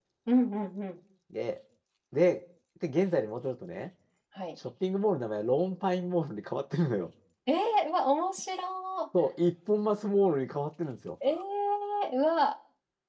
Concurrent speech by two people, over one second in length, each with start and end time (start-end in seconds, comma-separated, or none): none